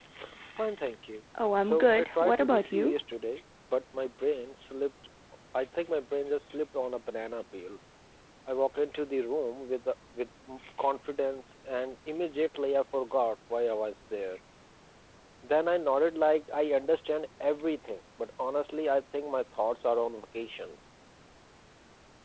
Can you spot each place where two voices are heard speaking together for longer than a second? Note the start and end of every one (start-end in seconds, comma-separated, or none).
1.6-2.9